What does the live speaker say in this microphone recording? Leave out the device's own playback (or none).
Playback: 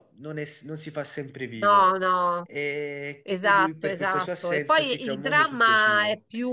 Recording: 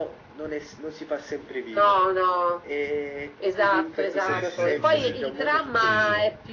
Eh sì, assolutamente. Sì, sì.